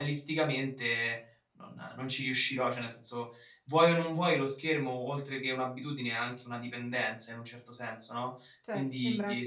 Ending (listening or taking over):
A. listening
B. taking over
B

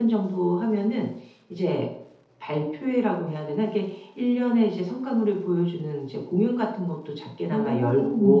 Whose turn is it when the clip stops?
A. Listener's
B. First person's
B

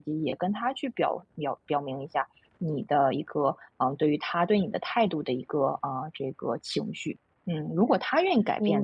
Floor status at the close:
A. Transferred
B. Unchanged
B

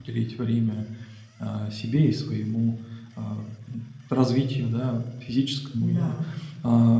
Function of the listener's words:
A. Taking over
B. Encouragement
B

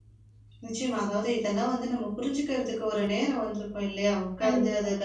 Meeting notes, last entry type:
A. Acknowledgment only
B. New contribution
A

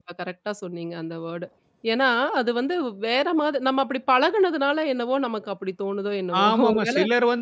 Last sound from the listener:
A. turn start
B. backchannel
A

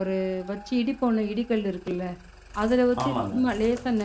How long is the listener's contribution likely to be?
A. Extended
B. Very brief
B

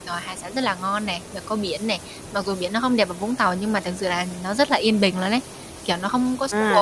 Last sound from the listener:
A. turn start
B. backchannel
A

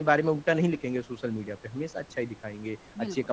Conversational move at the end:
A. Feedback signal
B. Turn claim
A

